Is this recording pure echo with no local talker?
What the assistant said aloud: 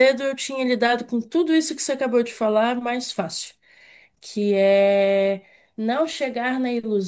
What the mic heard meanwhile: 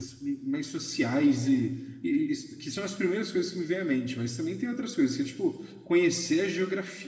No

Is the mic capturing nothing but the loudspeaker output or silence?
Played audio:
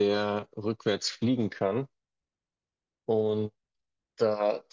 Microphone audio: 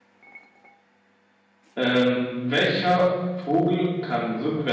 No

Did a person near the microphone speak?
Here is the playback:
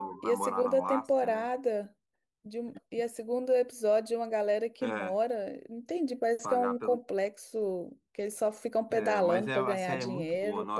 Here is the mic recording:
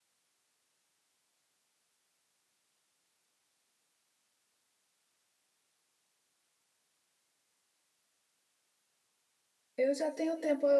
Yes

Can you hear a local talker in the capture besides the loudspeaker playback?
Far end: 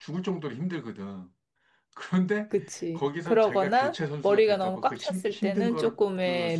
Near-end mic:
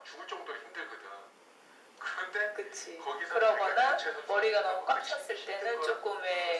No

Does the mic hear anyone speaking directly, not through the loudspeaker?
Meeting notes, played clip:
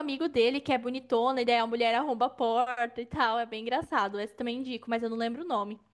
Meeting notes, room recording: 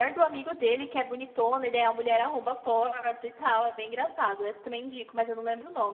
No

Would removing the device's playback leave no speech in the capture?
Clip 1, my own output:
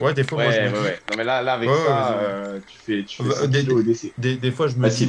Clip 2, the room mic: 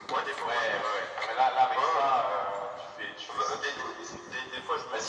Yes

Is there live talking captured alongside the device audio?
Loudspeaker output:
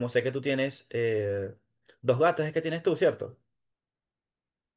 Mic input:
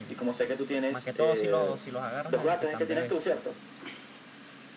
Yes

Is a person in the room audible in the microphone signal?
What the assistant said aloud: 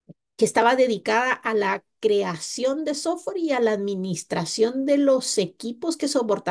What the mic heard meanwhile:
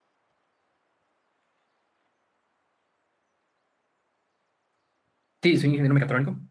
Yes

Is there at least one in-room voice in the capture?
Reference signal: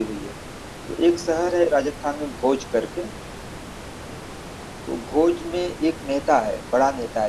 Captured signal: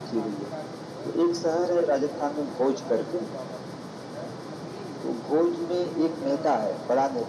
Yes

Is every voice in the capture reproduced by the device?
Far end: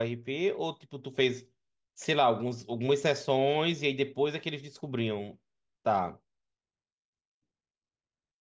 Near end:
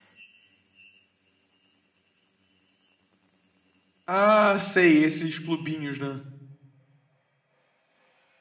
No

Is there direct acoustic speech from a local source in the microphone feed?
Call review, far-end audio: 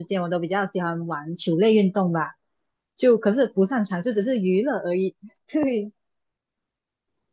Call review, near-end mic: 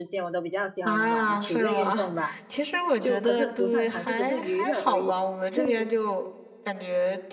Yes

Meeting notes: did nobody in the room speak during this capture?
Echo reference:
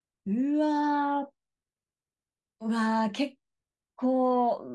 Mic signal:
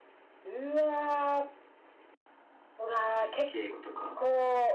No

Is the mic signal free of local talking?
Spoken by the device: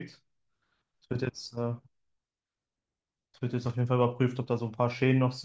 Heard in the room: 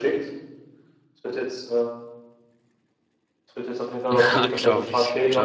No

